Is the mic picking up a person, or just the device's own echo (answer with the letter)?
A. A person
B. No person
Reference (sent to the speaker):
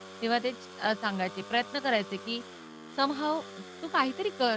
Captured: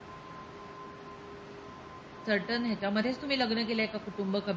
A